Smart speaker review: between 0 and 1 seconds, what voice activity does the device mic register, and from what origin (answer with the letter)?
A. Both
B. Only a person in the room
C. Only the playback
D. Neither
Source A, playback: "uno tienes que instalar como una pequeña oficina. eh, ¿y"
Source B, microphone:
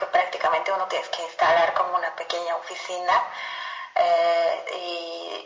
C